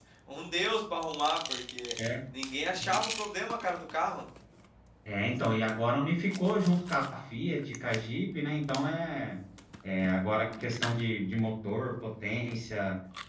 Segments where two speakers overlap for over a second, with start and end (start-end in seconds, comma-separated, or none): none